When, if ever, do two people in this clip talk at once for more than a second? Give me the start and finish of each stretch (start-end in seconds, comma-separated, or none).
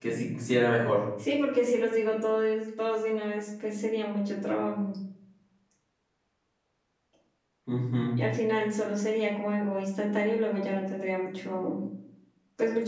none